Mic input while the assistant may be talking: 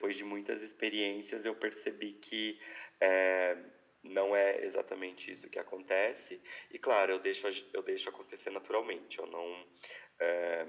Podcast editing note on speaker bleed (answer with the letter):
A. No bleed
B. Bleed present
B